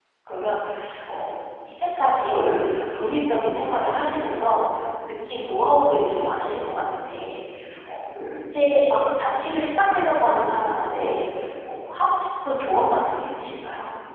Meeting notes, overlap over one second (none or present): none